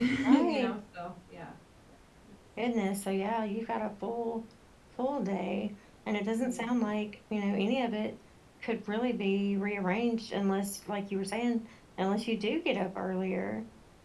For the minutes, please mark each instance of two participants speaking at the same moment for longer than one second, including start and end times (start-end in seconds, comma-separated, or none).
none